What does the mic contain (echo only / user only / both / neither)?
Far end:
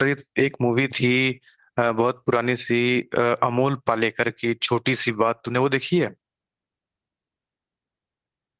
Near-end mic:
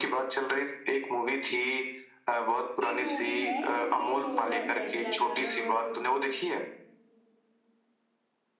both